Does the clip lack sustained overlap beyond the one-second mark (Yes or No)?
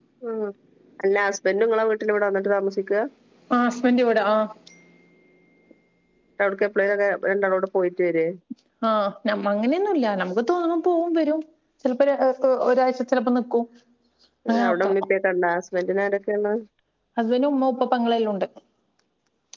Yes